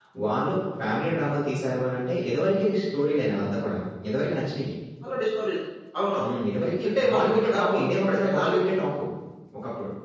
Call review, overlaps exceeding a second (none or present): present